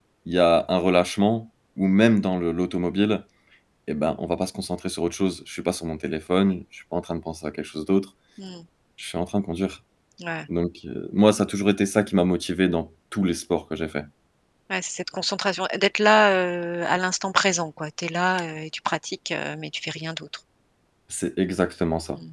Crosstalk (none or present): none